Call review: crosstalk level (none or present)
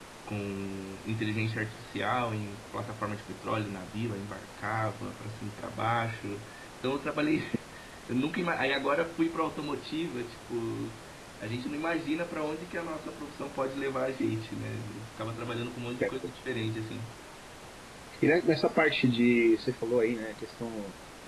none